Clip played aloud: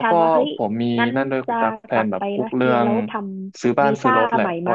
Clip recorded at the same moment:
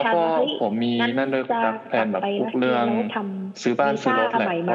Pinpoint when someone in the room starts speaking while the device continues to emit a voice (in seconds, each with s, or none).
none